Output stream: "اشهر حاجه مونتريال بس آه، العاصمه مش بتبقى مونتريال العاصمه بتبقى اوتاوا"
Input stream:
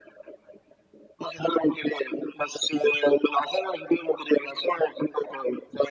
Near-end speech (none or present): none